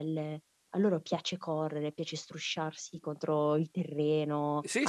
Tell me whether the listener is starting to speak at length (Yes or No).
No